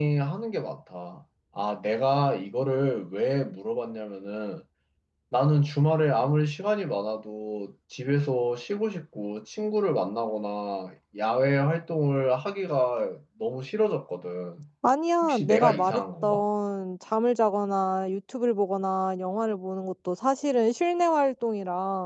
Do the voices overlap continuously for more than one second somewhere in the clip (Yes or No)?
Yes